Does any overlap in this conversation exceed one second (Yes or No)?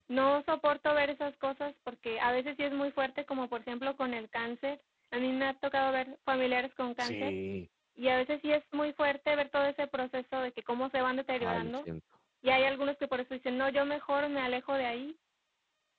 No